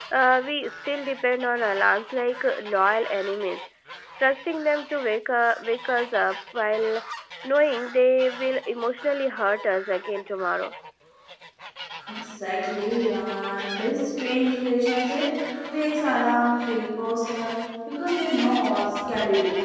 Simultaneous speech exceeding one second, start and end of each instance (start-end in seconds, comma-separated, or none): none